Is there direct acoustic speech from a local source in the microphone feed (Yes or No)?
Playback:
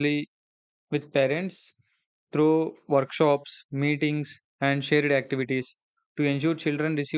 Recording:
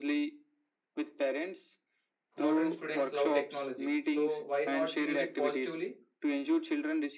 Yes